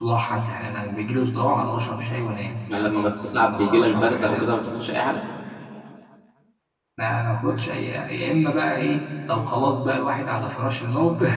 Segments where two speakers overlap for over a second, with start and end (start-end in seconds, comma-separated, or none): 2.7-4.5